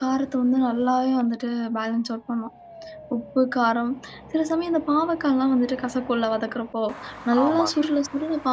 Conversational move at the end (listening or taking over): listening